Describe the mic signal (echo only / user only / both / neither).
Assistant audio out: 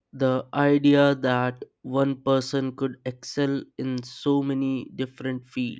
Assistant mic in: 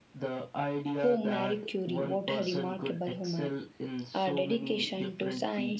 both